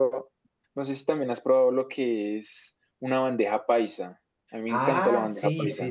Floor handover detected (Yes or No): Yes